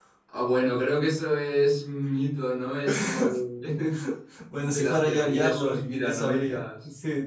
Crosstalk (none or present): present